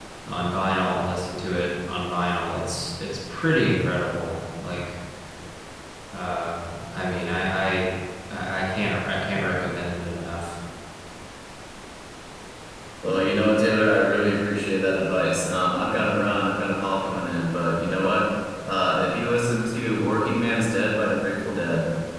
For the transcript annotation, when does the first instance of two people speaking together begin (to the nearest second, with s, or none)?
none